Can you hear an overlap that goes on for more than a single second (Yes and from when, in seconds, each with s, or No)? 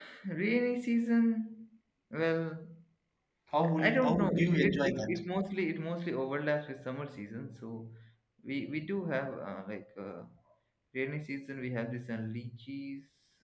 Yes, from 3.8 s